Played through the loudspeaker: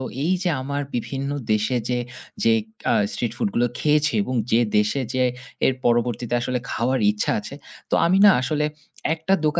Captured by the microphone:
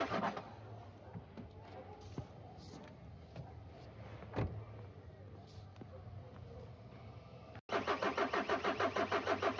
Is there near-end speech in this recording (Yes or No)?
No